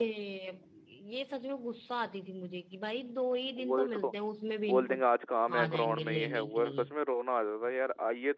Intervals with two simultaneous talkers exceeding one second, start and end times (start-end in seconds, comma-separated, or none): 5.5-6.9